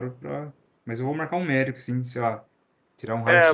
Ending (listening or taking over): taking over